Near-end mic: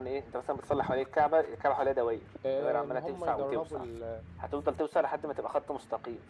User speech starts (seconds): 2.4 s

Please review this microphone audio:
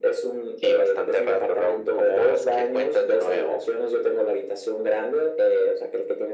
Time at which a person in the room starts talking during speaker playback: none

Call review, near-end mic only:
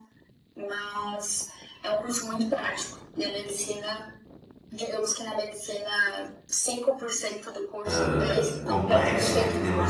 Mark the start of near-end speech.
7.8 s

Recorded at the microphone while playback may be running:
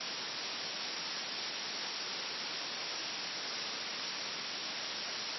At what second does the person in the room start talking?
none

